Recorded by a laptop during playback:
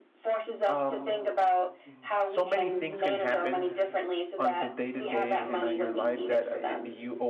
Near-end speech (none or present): present